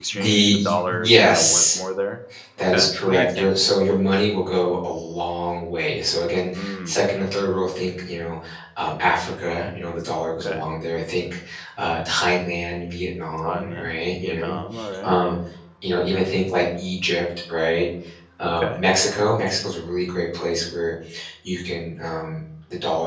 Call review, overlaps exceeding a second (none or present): present